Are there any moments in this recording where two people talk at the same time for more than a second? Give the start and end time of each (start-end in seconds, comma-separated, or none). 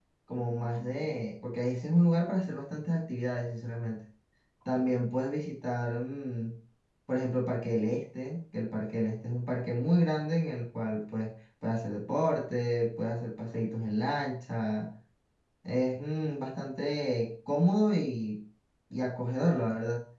none